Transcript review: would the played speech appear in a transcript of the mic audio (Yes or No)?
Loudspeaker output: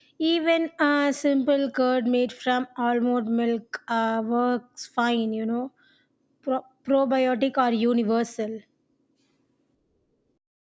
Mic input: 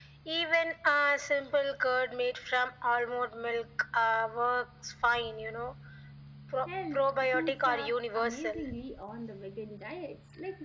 Yes